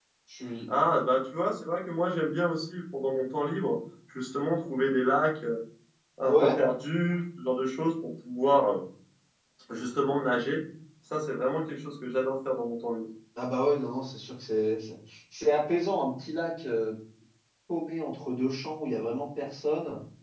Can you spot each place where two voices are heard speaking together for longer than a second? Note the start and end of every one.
none

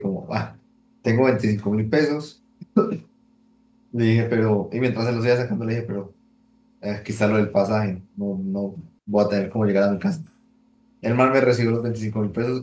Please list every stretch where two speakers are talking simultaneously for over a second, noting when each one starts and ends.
none

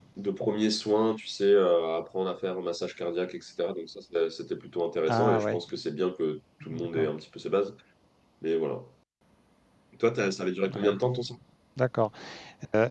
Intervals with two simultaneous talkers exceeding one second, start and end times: none

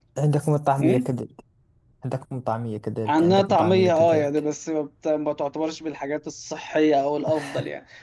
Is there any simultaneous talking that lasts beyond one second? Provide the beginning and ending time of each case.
3.1-4.3

